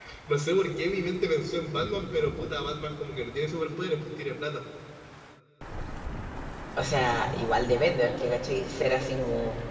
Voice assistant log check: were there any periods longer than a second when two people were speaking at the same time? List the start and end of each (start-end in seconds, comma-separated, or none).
none